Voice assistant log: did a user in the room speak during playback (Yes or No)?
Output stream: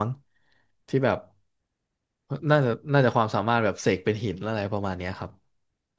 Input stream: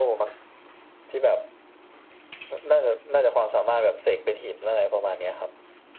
No